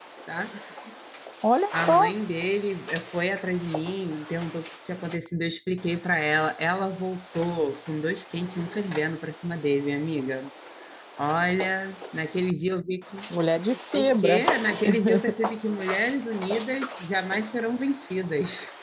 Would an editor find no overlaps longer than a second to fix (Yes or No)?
Yes